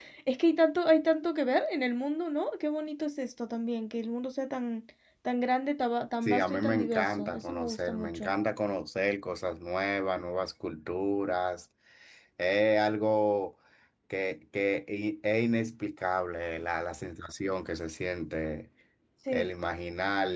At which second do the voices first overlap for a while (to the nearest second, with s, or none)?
6 s